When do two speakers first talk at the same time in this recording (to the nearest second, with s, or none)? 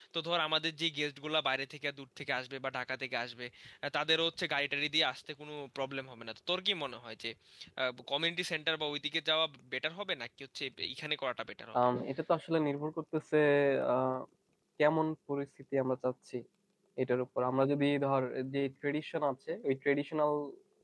none